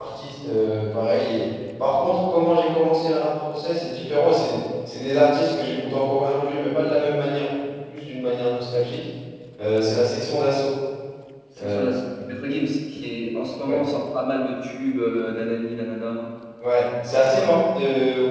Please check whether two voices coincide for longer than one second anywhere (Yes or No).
No